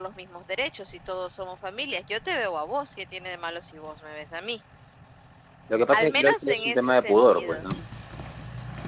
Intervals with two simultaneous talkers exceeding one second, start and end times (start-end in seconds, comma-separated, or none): 5.9-7.6